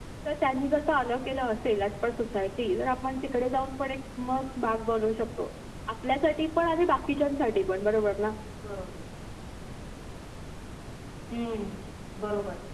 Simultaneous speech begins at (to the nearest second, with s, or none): none